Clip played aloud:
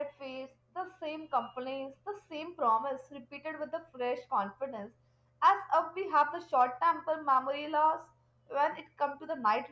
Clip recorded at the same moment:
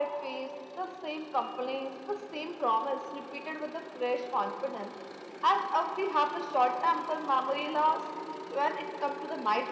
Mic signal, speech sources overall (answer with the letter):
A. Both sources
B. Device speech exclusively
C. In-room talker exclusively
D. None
B